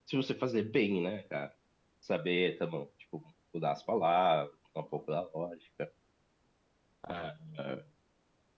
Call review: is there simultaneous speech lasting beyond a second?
No

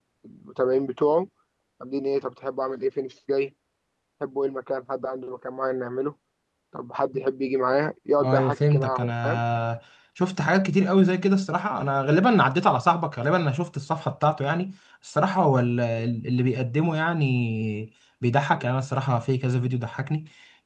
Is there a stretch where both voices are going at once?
Yes, from 8.2 s

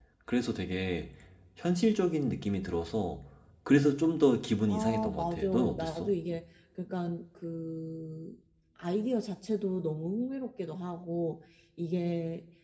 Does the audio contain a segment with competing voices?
Yes, from 4.7 s

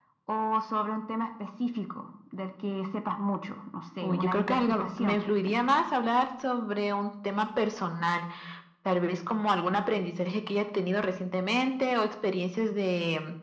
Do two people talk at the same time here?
Yes, from 4.0 s

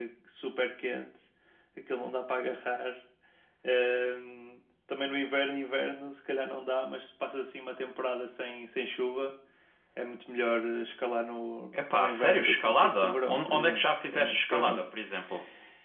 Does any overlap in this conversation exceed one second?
Yes, from 11.7 s

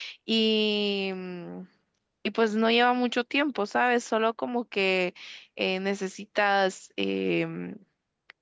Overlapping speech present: No

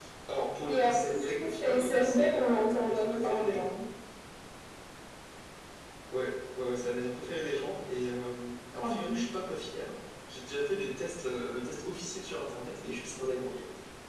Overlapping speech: Yes, from 0.6 s

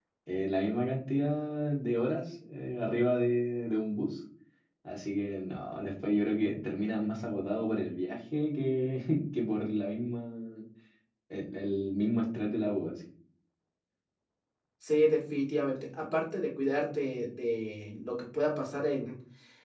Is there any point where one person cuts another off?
No

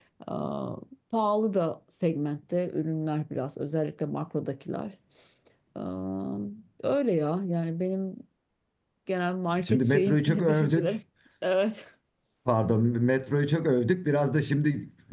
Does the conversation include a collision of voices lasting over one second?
Yes, from 9.6 s

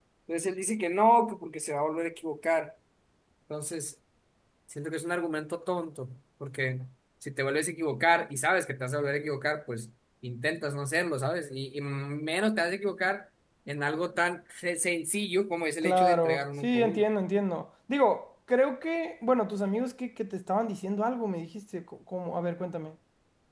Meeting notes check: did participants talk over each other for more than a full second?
Yes, from 15.8 s

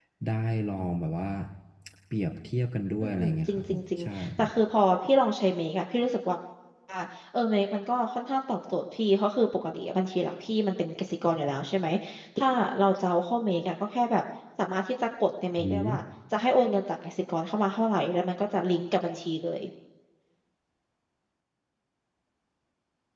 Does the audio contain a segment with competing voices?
Yes, from 3.0 s

